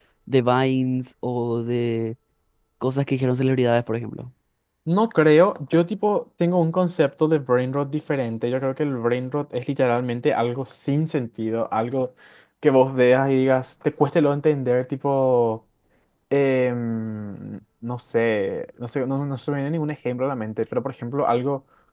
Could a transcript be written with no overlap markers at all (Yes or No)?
Yes